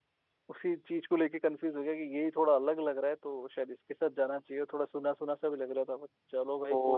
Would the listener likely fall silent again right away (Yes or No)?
No